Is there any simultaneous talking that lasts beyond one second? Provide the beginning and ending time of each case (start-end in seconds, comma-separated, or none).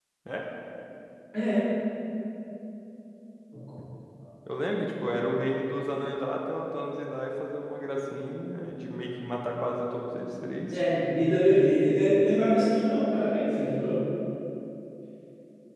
none